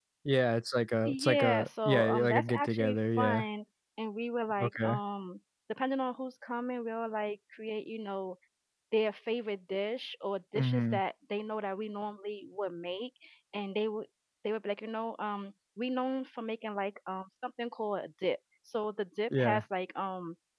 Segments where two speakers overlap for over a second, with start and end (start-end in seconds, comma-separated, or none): 1.0-3.4